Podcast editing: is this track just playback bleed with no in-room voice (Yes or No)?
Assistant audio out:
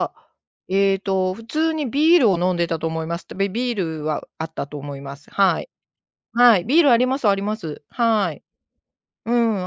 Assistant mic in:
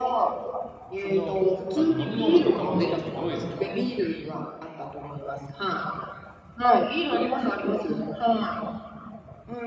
No